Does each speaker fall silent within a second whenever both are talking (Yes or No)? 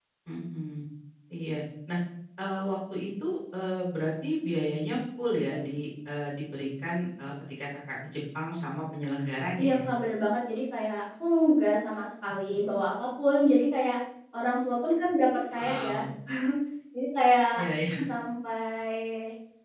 Yes